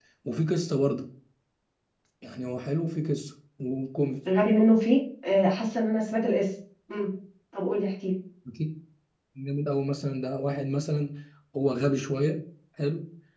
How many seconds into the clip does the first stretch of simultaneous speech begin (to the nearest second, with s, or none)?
none